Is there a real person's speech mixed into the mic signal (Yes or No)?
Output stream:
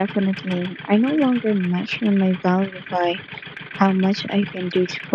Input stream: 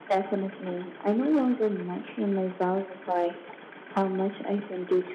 No